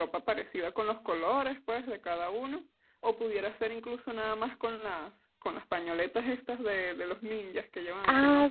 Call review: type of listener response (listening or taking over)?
taking over